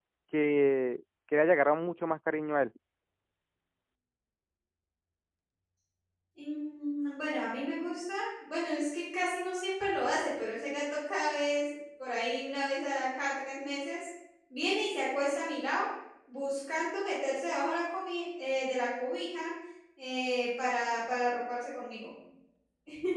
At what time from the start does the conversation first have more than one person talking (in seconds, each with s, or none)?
none